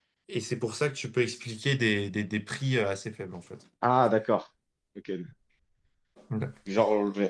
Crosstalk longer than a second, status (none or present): none